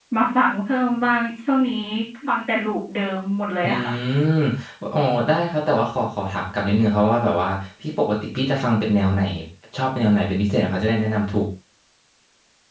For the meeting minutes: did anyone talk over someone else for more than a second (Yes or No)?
No